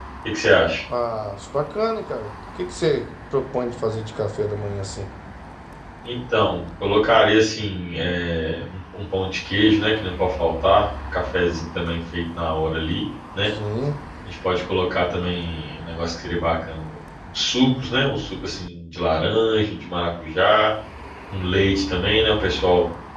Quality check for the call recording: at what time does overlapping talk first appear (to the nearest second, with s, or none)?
none